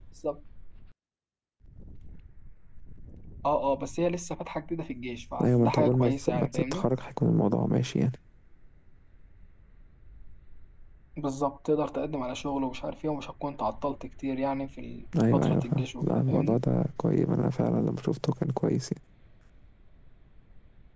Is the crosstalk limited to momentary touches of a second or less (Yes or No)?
No